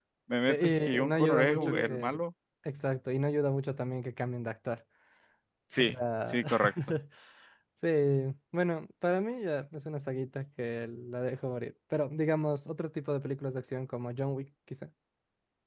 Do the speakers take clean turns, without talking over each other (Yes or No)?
No